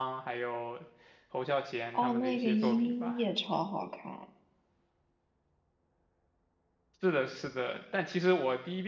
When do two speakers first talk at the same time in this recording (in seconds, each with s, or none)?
1.9 s